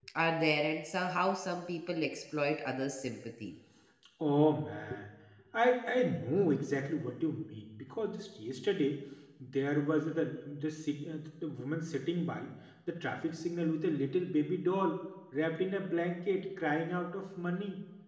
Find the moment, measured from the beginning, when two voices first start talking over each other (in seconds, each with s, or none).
none